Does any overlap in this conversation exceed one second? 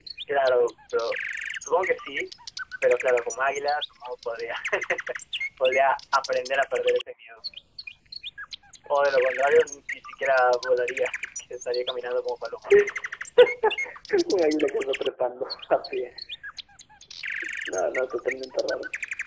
No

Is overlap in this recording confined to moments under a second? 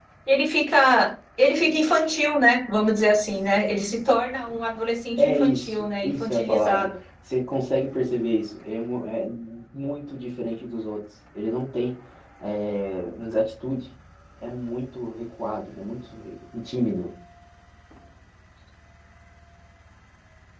No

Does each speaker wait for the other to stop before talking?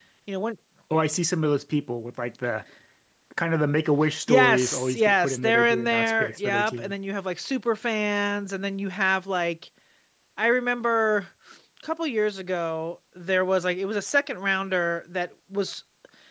No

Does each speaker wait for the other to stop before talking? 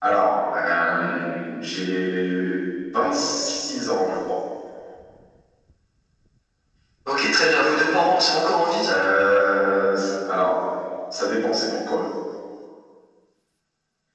Yes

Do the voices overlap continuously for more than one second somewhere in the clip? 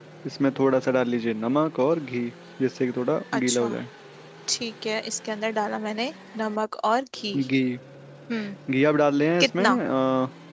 No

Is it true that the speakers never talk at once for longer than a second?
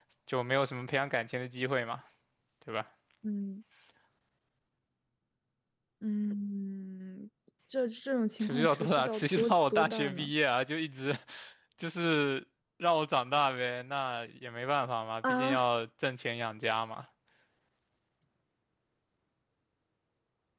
No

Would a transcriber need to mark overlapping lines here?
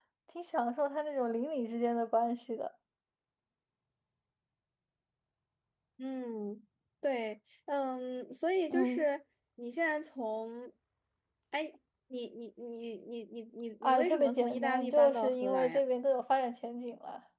Yes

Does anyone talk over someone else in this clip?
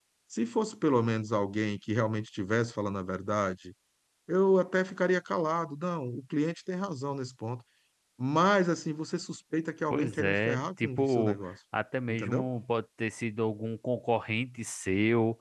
Yes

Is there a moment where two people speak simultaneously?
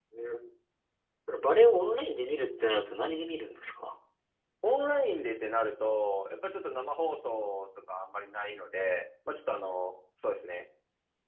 No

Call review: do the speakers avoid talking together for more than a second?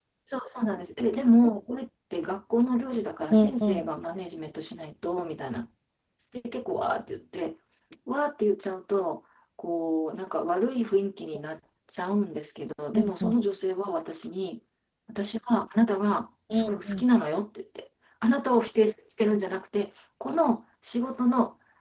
Yes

